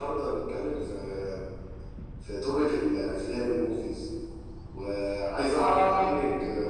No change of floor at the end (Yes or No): Yes